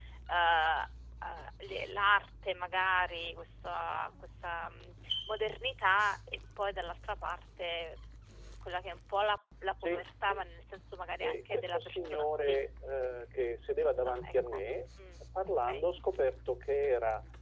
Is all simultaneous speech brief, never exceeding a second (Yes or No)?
No